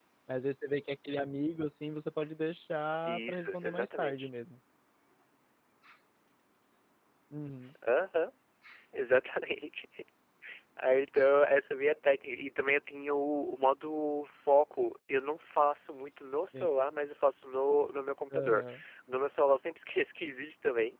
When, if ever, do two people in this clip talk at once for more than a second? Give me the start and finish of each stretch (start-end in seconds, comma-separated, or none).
3.0-4.3